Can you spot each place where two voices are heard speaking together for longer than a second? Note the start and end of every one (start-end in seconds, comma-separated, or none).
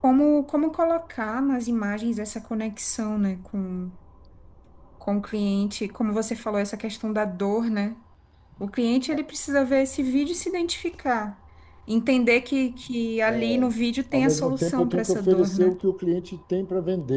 14.1-15.8